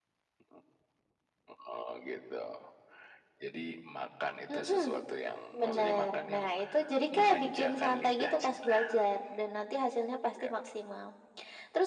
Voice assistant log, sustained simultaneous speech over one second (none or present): present